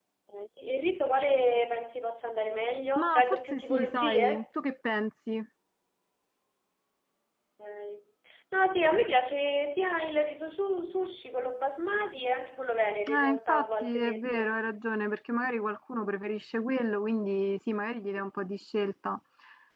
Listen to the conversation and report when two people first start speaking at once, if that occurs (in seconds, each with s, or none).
3.0 s